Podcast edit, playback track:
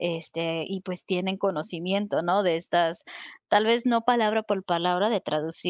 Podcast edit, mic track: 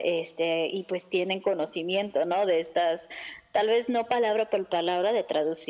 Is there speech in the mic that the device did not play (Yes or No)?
No